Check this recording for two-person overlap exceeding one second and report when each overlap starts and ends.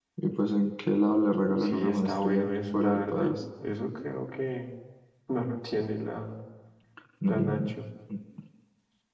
1.6-3.4

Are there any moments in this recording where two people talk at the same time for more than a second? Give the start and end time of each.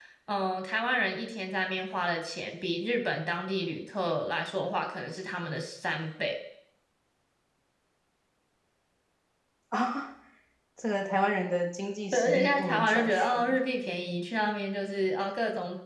12.1-13.6

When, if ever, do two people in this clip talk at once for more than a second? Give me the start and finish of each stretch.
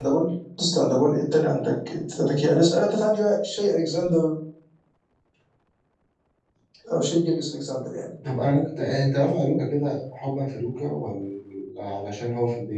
none

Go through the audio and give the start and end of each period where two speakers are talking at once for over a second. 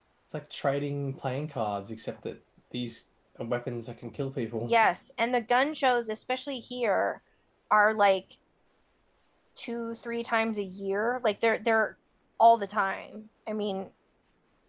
none

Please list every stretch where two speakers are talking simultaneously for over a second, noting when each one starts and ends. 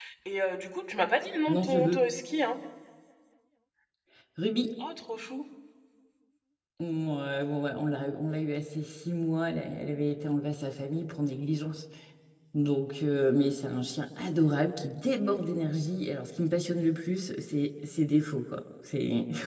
none

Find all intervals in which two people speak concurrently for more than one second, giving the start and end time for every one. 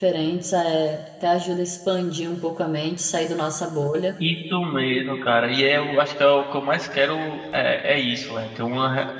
none

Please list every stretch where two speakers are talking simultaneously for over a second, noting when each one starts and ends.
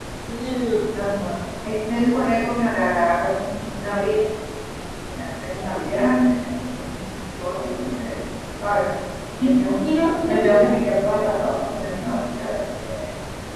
none

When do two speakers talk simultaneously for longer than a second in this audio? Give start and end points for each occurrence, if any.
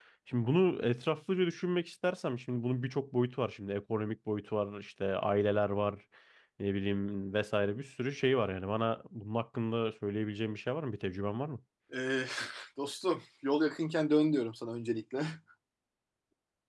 none

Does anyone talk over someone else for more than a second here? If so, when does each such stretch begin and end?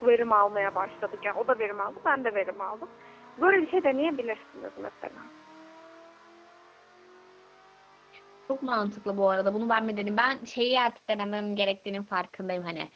none

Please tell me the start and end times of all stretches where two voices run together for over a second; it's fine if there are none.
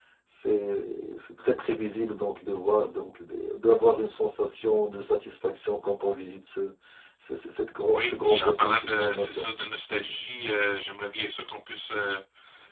7.9-9.5

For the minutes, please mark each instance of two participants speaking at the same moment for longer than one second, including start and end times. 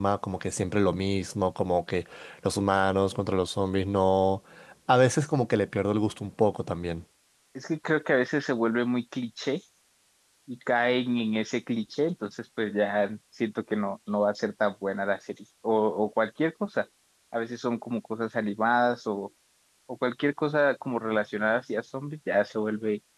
none

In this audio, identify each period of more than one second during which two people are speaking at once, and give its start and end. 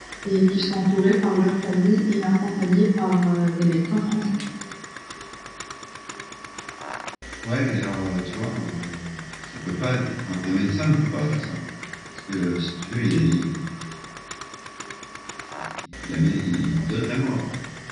none

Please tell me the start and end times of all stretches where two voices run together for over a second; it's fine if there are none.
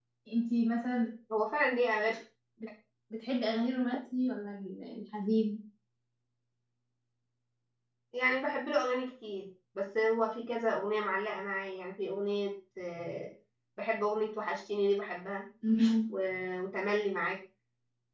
none

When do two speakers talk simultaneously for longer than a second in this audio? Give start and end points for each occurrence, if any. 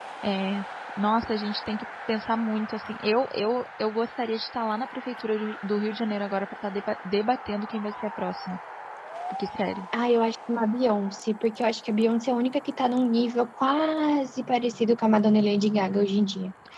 none

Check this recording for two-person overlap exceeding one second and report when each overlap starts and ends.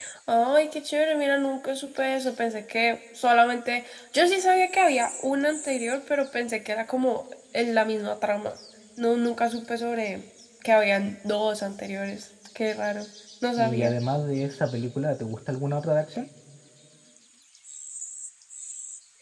none

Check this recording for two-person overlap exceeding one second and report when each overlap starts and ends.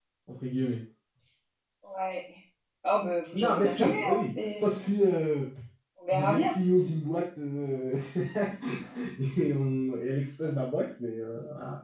3.3-4.7

